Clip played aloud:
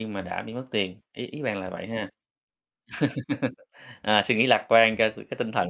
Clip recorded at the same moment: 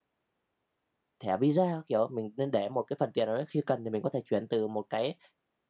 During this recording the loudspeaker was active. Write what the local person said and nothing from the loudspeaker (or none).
thẻ Visa các kiểu. Mình nên để một cái phần tiền nào đấy khi cần thì mình có thể chuyển từ một cái,